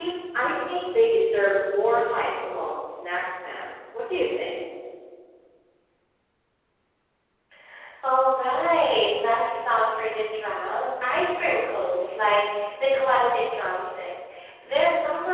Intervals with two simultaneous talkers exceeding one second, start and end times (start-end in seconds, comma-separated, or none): none